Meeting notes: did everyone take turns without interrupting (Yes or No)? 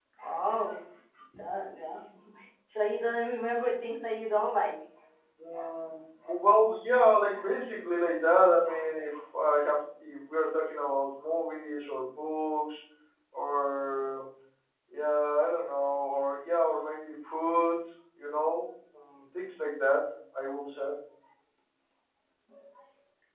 Yes